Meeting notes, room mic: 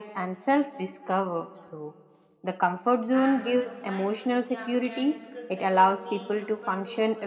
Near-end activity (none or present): present